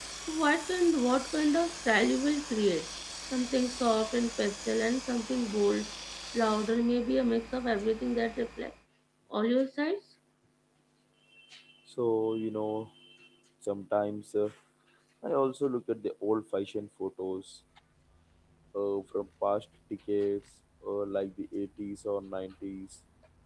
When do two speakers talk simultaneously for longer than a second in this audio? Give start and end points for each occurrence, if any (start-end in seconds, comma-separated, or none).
none